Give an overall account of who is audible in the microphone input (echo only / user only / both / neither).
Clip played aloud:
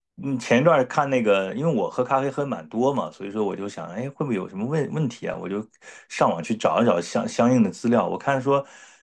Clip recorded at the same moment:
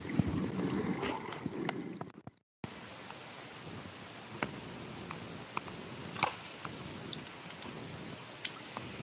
neither